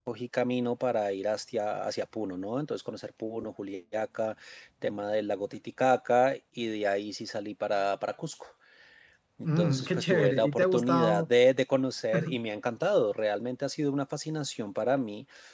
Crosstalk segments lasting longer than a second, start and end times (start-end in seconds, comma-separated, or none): 9.4-11.2